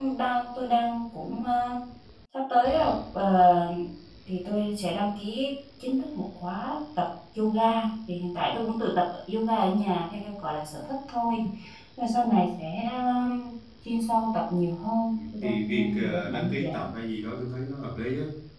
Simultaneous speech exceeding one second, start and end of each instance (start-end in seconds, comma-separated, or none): 15.1-16.9